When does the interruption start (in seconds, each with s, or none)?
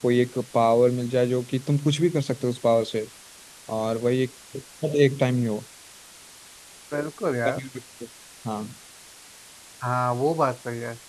none